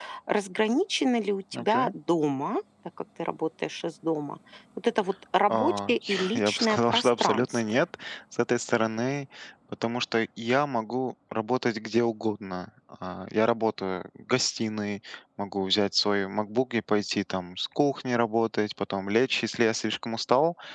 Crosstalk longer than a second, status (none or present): present